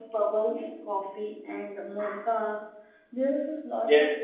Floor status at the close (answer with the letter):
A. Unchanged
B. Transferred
A